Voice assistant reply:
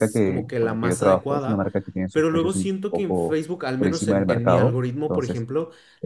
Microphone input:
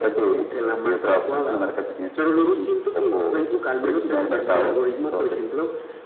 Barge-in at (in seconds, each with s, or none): none